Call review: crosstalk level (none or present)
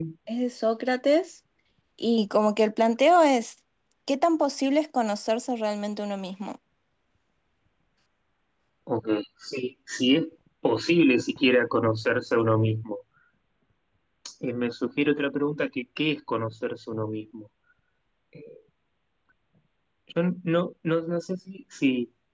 none